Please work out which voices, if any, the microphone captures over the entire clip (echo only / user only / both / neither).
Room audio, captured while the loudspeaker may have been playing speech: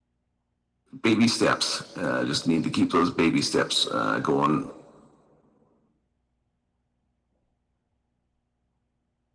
user only